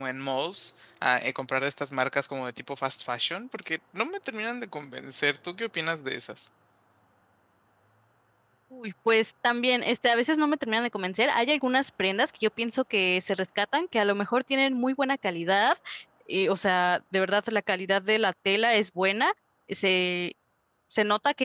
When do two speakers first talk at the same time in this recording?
none

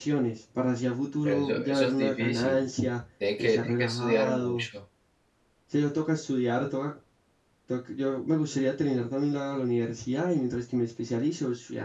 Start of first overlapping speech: 1.2 s

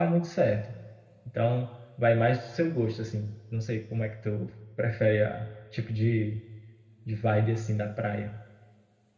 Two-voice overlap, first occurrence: none

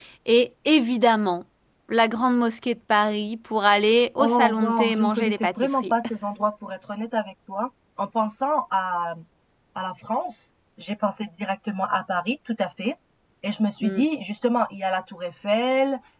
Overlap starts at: 4.2 s

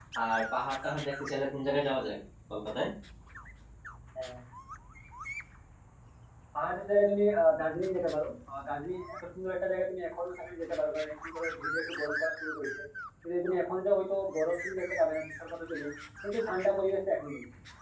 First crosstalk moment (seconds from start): none

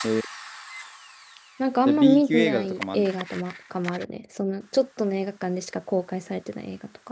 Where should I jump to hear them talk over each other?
1.9 s

